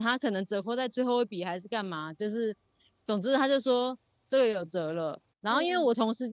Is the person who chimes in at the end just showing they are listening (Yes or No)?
Yes